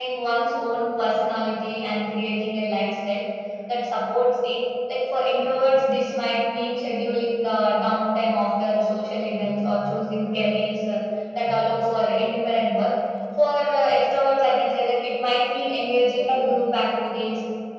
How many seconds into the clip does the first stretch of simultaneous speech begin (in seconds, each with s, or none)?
none